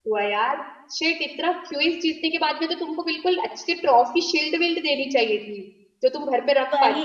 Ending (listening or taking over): taking over